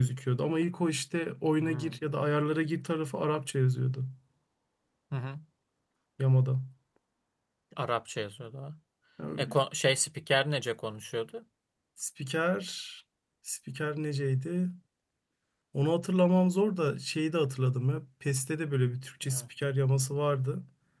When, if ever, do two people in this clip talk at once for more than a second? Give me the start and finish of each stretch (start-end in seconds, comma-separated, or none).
none